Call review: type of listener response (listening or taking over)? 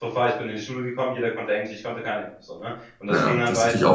taking over